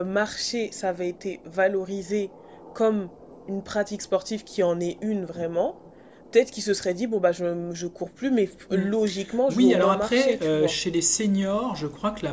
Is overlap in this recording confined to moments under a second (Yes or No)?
No